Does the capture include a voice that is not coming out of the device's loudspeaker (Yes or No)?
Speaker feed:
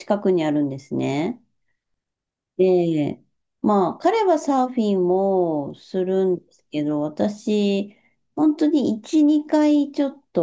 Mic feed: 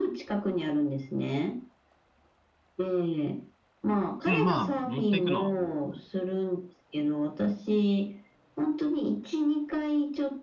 Yes